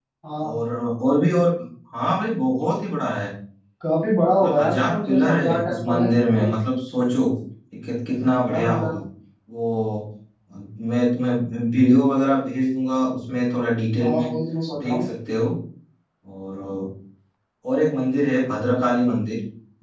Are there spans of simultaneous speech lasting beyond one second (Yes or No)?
Yes